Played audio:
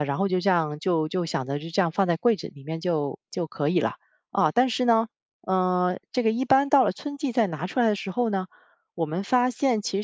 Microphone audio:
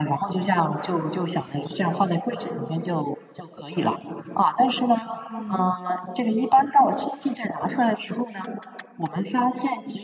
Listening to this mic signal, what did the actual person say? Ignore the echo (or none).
嗯。